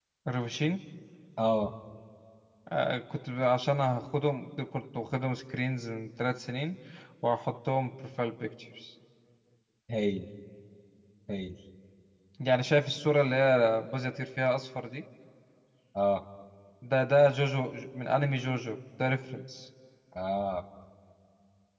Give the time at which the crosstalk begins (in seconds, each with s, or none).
none